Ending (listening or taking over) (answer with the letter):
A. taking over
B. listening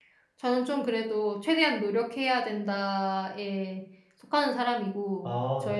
B